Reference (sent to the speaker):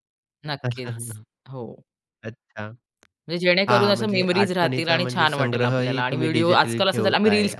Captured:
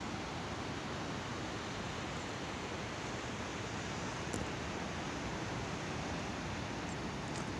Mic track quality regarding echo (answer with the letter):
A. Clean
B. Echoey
A